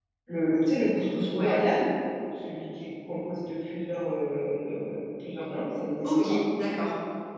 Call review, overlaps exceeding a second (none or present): none